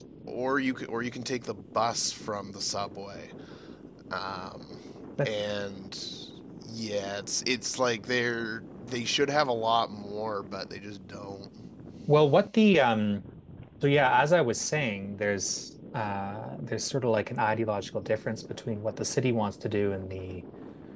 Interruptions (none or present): none